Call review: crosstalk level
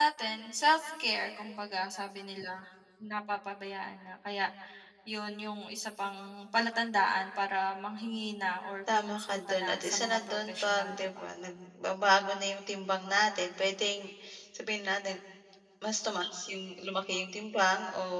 present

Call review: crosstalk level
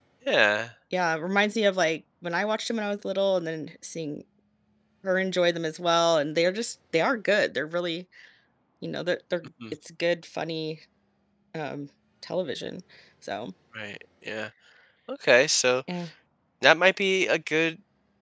none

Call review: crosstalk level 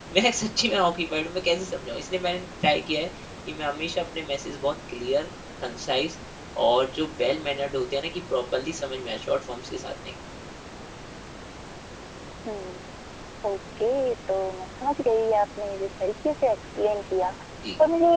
none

